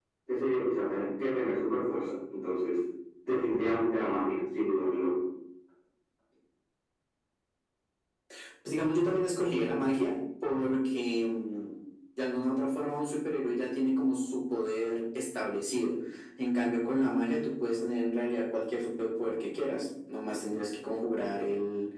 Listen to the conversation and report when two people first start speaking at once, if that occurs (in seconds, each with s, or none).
none